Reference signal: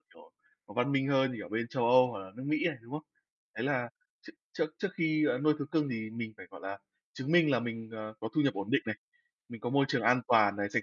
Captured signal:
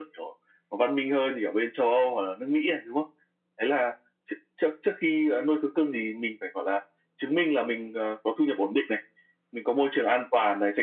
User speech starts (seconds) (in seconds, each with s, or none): none